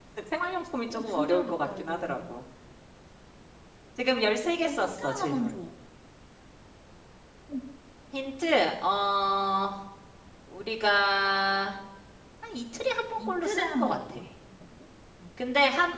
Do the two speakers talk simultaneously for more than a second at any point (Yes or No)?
Yes